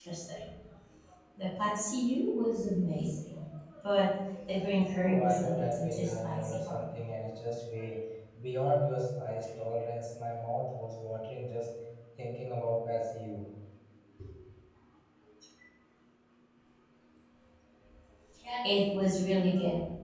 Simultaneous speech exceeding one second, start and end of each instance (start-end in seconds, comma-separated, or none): 4.9-6.8